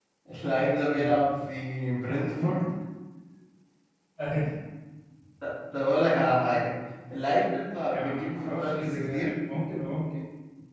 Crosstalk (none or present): present